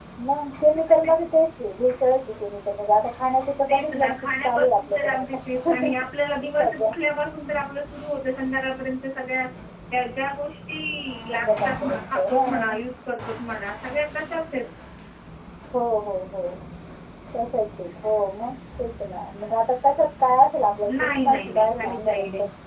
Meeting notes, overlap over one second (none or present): present